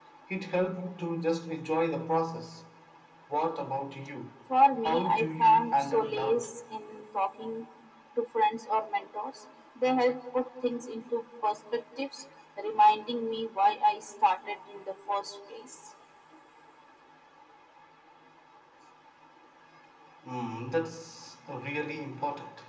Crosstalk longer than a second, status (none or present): present